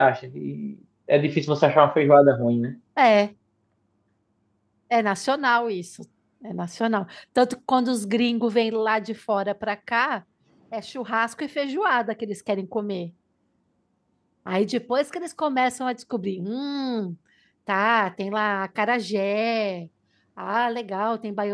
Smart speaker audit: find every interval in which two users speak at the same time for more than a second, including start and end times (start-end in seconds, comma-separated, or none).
none